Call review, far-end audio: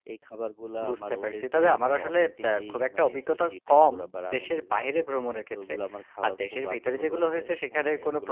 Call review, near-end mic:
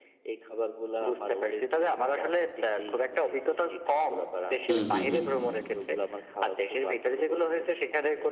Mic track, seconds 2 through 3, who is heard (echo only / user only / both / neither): echo only